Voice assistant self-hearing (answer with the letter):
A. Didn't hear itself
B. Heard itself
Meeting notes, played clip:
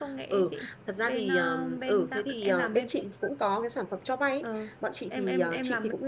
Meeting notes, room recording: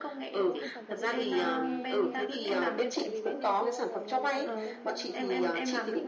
B